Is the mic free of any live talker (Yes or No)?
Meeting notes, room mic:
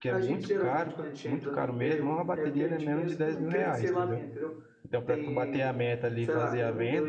No